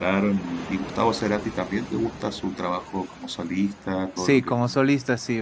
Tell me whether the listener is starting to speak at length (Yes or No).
Yes